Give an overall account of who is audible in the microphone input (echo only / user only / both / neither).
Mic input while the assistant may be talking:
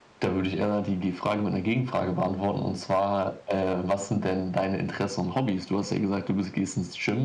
echo only